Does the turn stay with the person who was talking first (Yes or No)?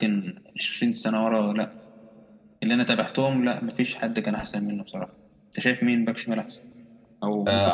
No